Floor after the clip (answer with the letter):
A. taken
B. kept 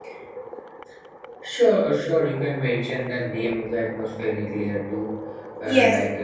A